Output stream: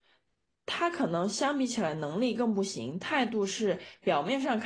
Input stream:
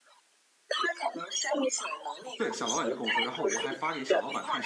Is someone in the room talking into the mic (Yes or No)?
Yes